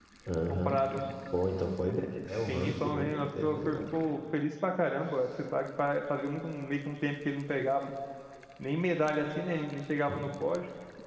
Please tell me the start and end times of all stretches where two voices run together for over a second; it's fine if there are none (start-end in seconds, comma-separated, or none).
2.5-3.8